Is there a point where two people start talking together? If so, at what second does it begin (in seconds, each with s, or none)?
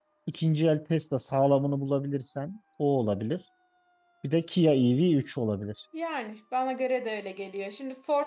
none